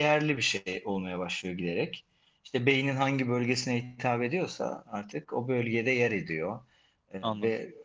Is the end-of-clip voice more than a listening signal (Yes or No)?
No